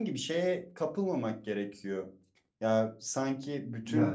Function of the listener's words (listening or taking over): listening